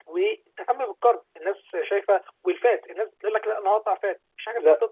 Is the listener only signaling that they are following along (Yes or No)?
No